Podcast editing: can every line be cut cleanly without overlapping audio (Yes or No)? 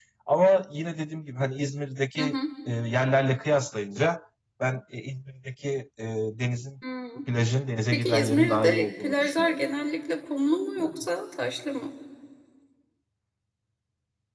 No